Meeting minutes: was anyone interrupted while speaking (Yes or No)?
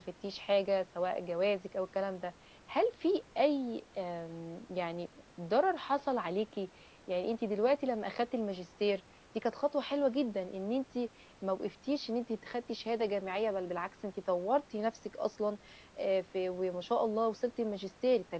No